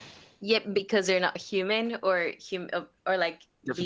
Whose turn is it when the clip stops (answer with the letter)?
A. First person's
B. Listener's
B